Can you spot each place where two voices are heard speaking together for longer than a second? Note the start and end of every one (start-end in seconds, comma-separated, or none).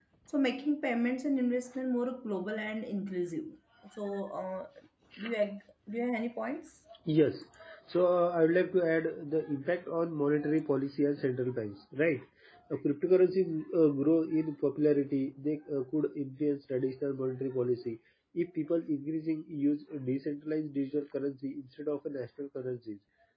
none